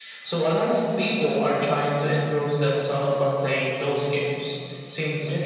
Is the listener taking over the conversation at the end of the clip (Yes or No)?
No